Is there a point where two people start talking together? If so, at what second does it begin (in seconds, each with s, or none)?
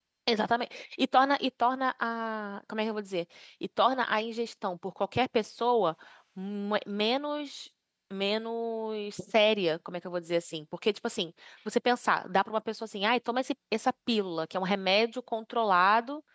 none